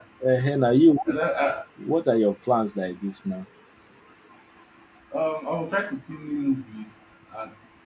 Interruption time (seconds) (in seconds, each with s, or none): none